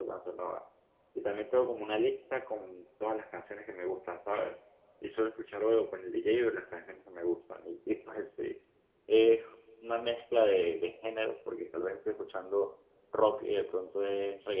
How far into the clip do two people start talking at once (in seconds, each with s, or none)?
none